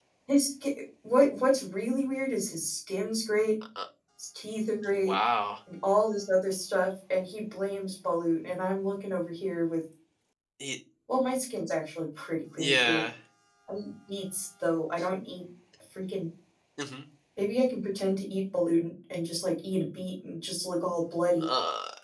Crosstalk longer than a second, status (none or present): none